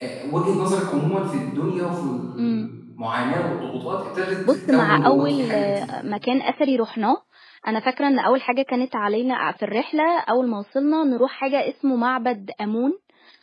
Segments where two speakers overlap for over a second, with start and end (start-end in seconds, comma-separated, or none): 4.5-5.9